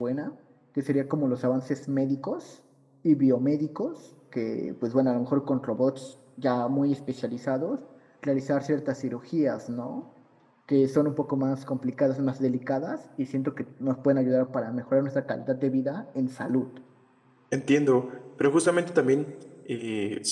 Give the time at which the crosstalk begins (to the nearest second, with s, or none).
none